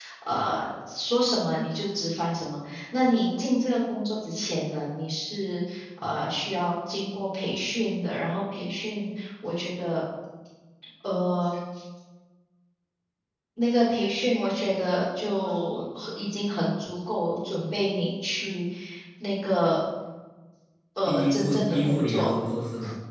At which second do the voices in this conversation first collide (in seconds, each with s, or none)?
21.1 s